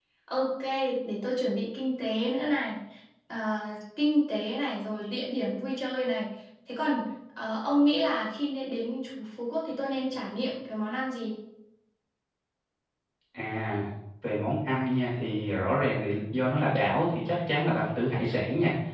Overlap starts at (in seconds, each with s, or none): none